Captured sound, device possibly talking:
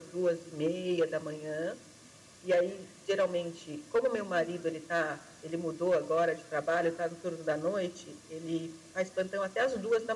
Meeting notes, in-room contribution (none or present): none